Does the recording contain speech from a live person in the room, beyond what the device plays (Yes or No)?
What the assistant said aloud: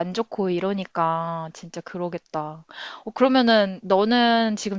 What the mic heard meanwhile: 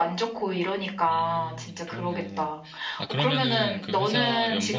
Yes